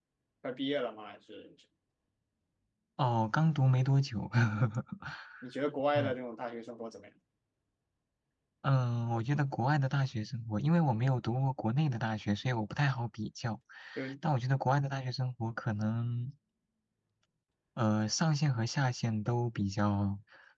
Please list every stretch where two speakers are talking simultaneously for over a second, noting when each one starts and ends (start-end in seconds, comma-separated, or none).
none